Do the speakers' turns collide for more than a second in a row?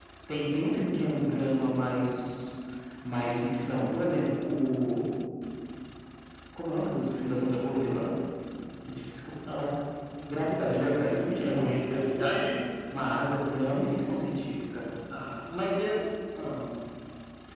No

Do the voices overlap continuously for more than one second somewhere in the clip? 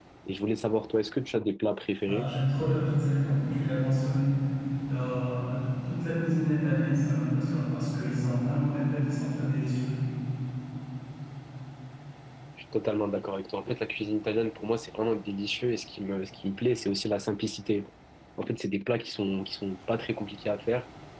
No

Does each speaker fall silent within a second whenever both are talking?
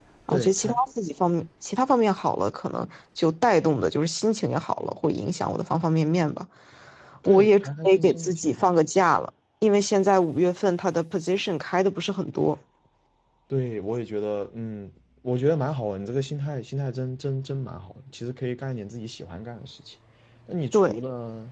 No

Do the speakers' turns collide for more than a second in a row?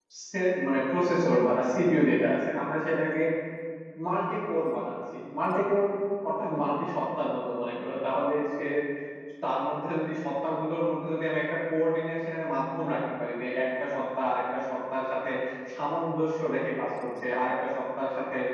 No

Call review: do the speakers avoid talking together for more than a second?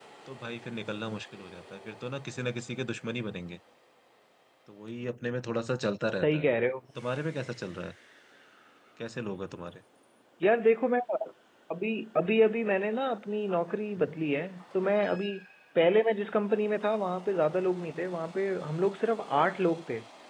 Yes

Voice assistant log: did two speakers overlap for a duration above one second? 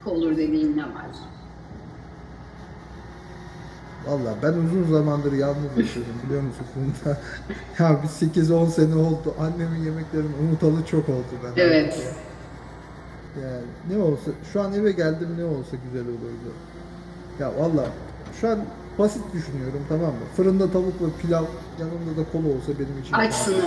No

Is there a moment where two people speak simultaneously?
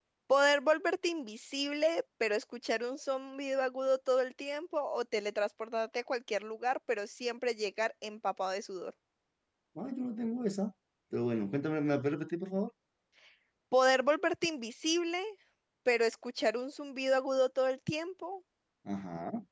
No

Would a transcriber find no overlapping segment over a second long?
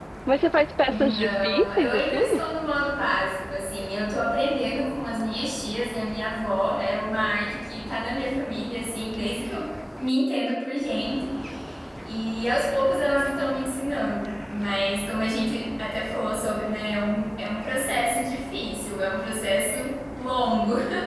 No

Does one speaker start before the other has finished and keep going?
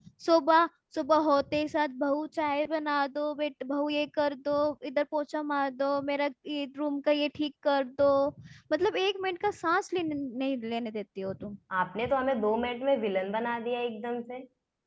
No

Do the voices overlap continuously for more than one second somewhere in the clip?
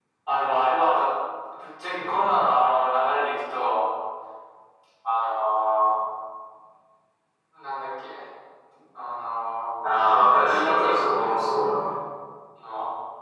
Yes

